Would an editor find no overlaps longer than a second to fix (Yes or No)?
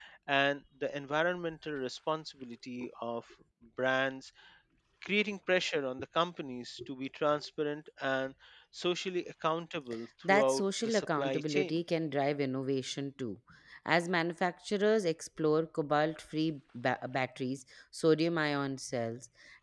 No